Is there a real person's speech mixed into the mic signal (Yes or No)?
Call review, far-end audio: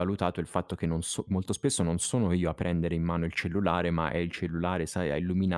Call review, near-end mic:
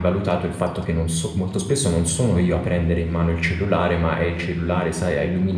No